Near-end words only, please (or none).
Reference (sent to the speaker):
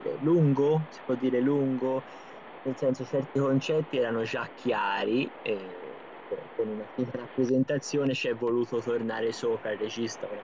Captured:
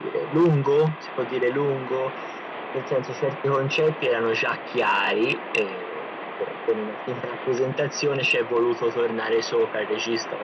none